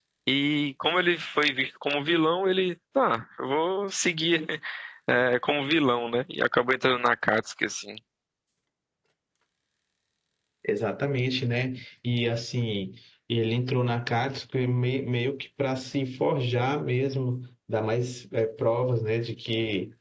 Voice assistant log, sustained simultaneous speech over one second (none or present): none